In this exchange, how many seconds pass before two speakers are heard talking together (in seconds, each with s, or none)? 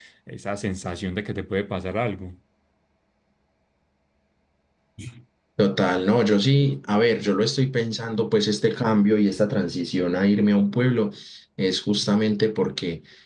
none